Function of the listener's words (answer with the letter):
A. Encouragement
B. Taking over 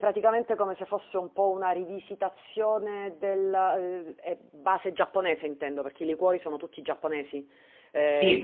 B